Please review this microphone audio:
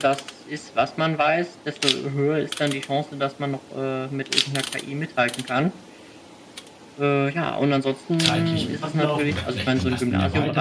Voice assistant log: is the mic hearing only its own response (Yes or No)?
No